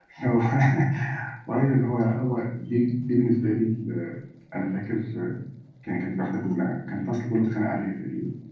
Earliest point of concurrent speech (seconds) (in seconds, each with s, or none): none